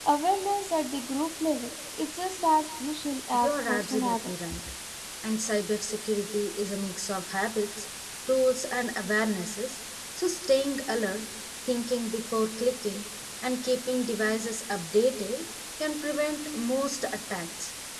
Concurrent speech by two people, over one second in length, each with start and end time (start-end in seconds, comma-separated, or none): 3.3-4.6